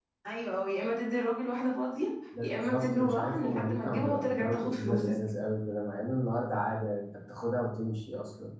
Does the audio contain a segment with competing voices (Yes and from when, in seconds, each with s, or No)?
Yes, from 2.3 s